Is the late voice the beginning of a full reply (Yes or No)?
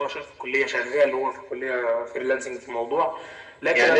Yes